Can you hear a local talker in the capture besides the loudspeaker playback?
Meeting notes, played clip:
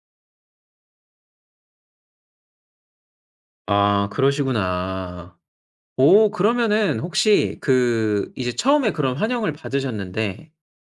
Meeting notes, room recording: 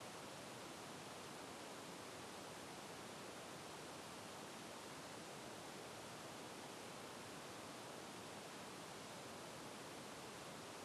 No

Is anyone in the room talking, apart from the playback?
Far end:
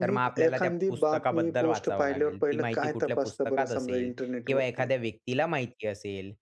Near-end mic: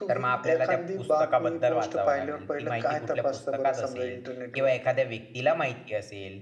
No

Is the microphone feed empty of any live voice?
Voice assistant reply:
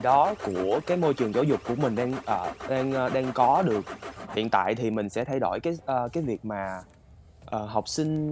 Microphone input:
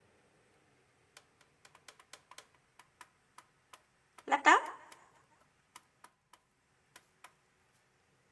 No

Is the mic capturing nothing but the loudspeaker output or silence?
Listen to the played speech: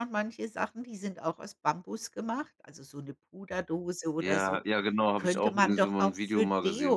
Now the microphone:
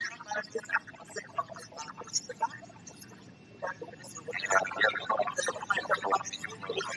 Yes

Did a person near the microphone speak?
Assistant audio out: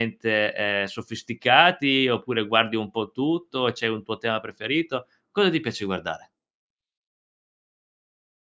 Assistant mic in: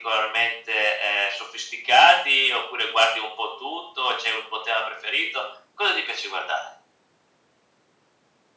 No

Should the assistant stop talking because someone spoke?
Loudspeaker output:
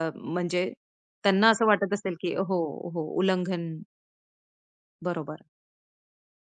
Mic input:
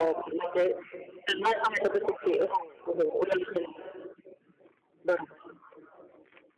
No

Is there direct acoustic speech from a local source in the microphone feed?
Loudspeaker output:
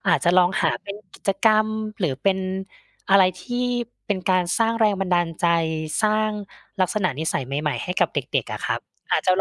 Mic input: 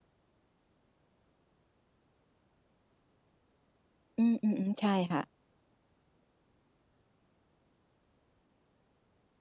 Yes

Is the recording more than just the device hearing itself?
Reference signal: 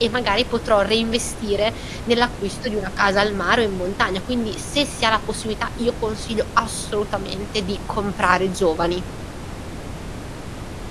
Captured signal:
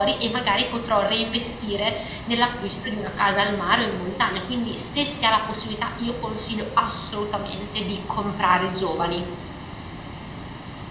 No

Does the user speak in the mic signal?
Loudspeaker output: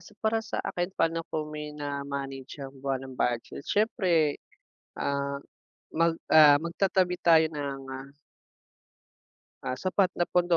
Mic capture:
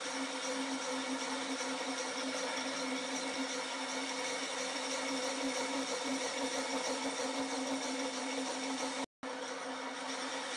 No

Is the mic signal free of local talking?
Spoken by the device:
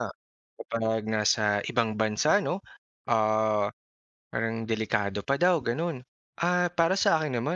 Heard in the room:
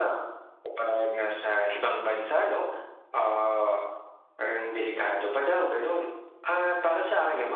Yes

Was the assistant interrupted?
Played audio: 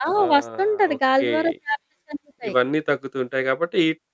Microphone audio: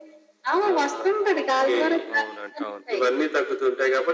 Yes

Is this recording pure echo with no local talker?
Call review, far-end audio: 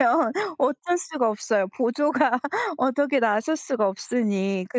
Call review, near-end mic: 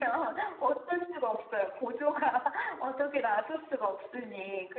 Yes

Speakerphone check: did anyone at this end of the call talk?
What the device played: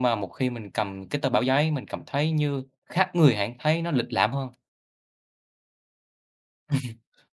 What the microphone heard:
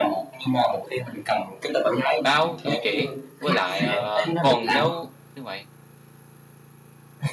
Yes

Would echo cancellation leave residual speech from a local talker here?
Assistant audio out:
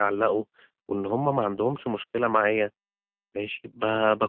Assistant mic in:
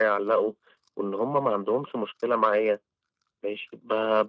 No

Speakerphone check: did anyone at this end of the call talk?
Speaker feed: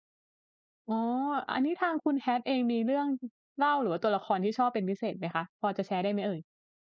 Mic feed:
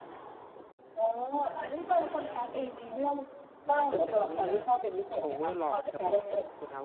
Yes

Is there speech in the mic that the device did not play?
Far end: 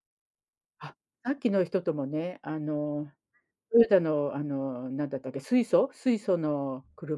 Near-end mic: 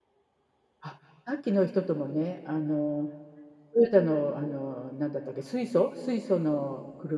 No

